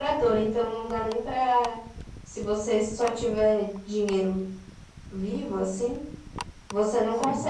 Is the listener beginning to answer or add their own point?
No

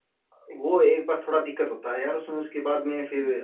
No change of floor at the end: Yes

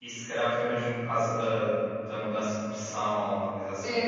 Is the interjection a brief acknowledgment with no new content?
No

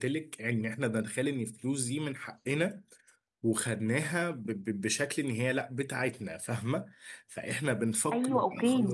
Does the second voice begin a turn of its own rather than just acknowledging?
Yes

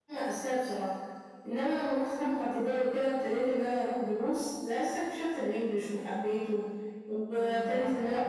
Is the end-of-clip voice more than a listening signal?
Yes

